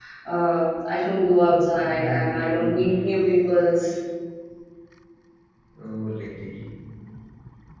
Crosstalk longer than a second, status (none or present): present